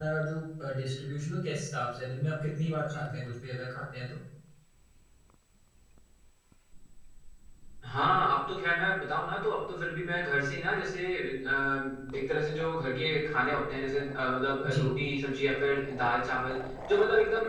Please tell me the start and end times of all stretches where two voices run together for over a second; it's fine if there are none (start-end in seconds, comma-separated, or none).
none